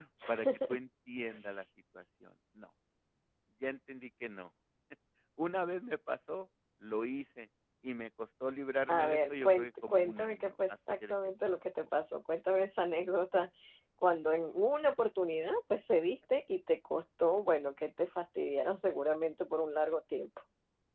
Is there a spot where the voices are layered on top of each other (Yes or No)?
Yes